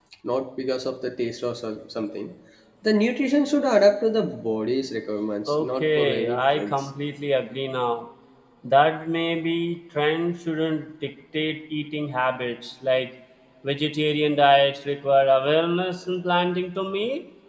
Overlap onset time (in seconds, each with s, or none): 5.5 s